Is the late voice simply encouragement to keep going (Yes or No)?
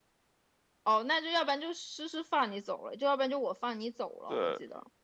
No